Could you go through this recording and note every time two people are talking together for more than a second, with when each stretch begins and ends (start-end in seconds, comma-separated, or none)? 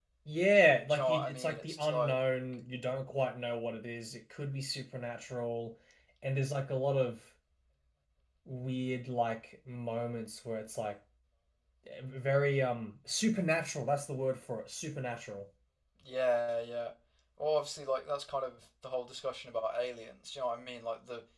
0.9-2.1